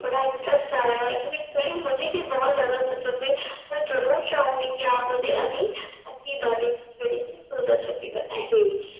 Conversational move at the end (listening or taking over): taking over